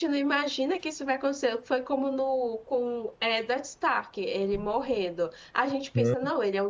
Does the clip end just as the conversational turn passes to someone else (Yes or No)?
No